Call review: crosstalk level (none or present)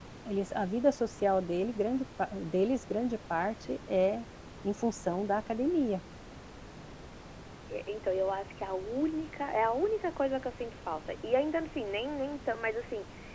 none